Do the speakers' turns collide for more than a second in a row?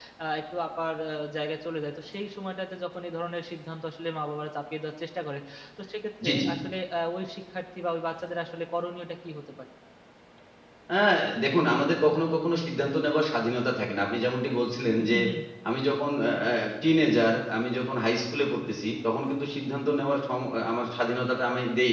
No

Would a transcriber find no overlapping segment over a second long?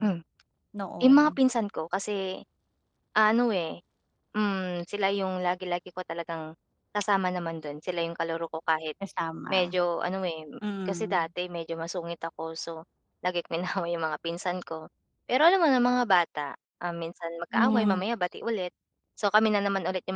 Yes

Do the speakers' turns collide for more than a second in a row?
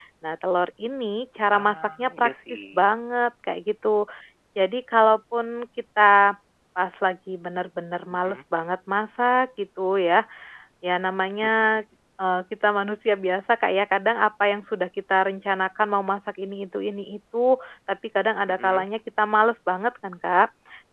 Yes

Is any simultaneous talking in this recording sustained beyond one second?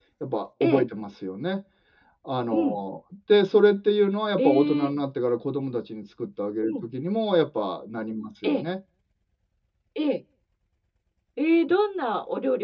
No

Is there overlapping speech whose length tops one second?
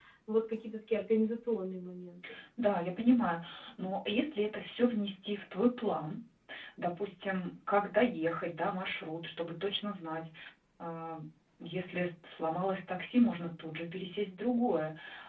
No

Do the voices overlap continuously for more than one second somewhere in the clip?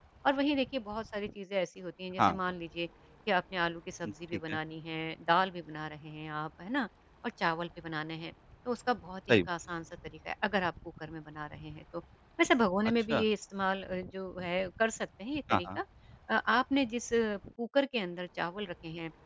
No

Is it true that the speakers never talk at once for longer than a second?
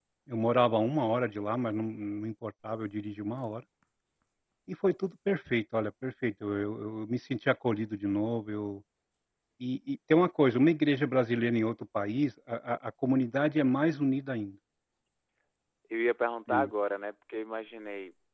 Yes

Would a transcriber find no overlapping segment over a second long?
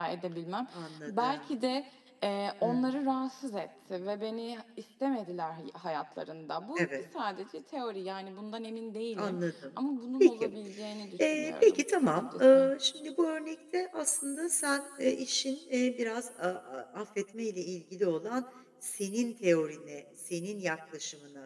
No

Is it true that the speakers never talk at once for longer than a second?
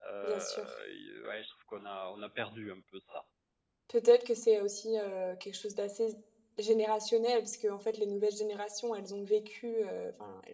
Yes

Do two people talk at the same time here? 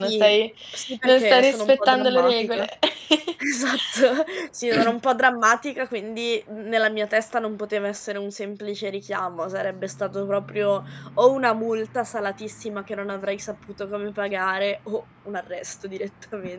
Yes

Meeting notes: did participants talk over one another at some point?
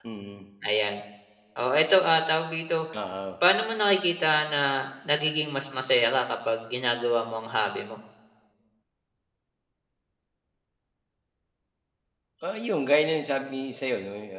No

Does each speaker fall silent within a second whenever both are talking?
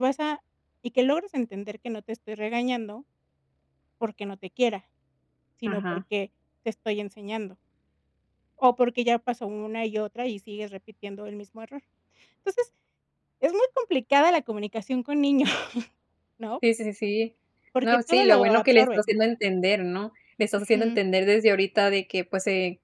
No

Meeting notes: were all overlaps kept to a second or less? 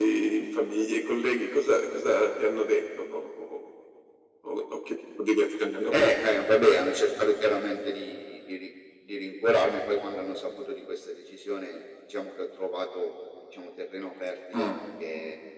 Yes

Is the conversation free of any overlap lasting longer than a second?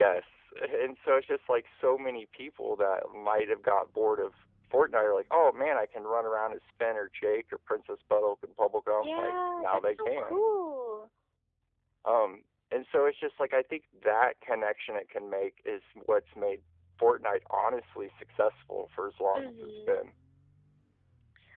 No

